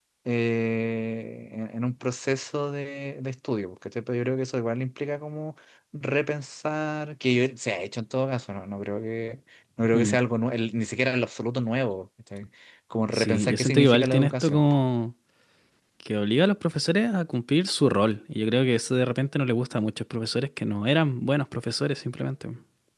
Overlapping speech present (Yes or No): Yes